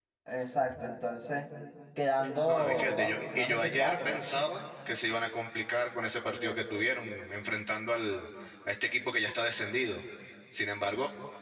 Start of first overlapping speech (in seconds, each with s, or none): 2.5 s